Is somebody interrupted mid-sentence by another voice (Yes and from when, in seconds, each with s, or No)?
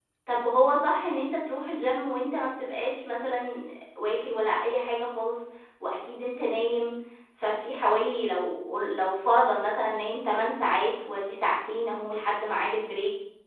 No